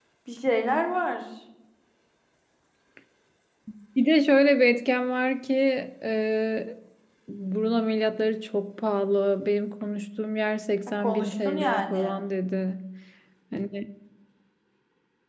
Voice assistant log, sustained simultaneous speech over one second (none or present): present